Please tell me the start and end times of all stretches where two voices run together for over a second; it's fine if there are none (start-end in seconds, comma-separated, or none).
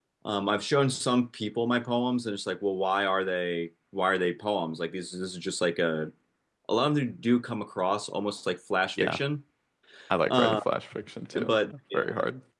none